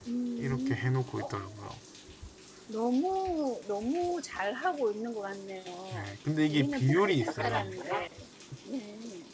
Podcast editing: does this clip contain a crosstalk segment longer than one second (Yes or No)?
Yes